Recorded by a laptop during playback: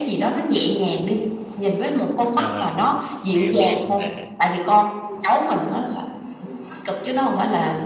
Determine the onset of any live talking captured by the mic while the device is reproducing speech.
2.3 s

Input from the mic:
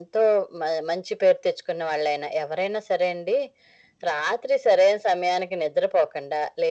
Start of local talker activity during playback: none

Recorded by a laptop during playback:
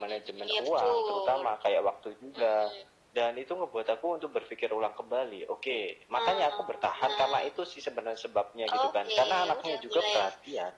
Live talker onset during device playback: none

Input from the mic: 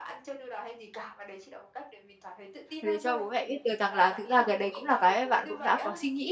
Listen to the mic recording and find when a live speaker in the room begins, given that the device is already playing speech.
2.8 s

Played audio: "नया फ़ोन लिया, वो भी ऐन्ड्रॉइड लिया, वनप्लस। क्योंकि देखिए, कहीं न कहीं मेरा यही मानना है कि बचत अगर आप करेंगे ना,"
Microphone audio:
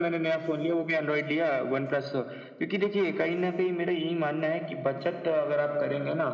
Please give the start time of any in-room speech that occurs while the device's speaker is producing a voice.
none

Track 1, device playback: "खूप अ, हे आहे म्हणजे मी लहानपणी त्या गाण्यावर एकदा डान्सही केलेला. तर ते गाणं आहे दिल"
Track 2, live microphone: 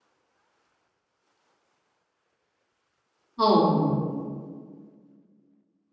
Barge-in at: 3.4 s

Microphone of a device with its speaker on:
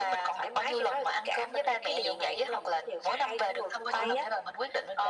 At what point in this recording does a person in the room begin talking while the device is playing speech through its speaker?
3.9 s

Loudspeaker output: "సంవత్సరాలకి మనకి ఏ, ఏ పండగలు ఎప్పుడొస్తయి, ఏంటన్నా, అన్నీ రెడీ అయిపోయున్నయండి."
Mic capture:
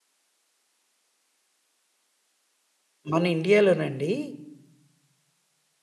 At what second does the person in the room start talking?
3.1 s

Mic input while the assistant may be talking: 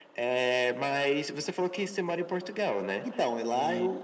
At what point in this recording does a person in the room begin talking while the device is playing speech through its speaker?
none

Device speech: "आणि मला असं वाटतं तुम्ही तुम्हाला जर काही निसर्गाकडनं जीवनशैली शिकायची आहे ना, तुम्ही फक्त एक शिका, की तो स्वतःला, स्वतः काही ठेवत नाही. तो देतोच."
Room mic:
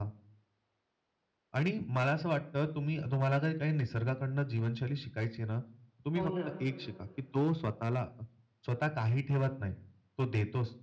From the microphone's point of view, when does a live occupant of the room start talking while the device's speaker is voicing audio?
6.2 s

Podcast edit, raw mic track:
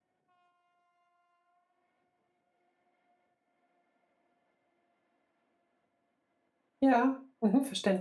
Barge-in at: 6.8 s

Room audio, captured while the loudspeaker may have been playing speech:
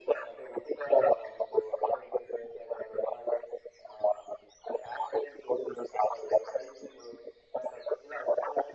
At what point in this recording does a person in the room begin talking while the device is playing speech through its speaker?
none

